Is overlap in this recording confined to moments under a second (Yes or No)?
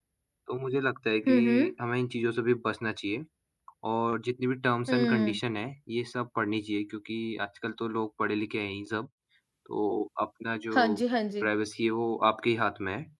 Yes